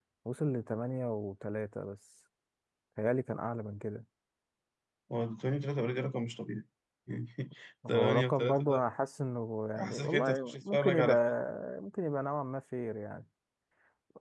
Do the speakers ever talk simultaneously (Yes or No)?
Yes